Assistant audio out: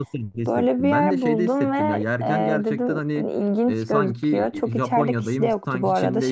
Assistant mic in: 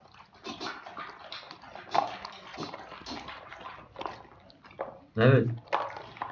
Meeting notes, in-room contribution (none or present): present